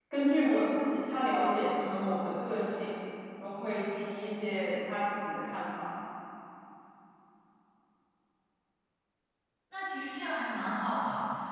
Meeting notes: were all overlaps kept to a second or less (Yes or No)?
Yes